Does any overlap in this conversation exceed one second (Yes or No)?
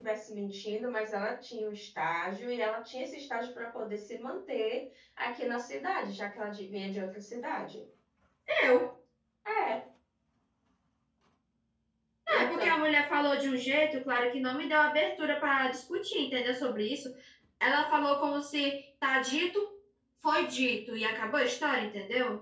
No